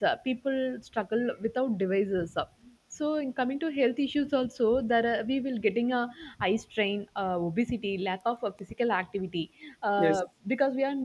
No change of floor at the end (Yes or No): Yes